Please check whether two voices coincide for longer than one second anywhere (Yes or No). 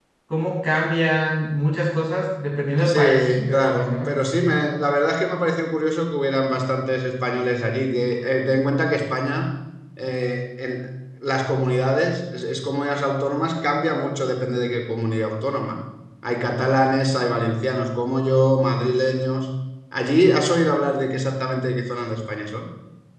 Yes